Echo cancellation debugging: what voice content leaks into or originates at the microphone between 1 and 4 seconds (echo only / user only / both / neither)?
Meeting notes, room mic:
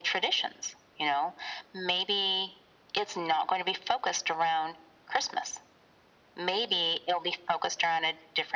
echo only